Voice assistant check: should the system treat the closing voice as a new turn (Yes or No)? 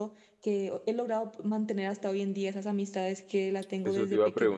Yes